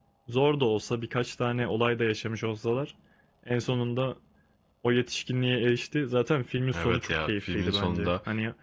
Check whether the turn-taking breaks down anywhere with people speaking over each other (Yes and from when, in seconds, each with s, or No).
Yes, from 6.7 s